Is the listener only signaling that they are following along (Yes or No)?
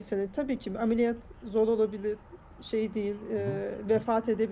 Yes